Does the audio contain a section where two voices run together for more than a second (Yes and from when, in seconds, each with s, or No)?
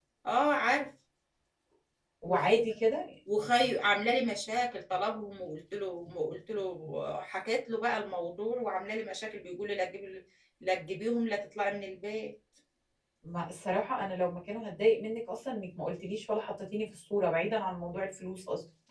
No